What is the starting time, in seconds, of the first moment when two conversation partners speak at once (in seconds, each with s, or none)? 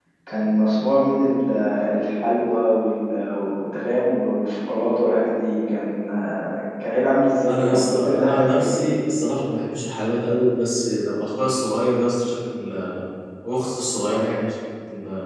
7.4 s